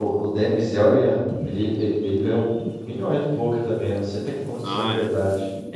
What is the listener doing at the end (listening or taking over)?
taking over